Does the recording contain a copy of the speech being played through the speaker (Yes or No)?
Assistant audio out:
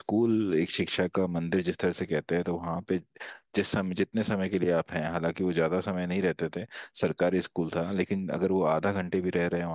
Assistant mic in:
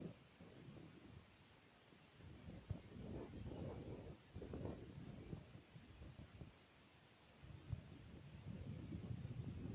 No